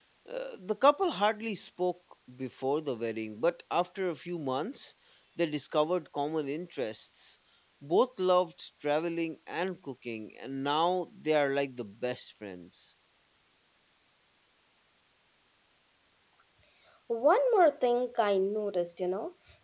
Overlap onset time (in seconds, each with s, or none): none